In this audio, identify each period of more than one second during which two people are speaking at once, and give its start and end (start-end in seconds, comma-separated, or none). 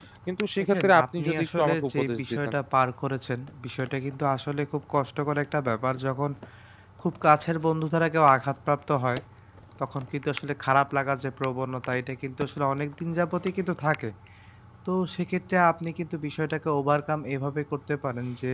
0.7-2.5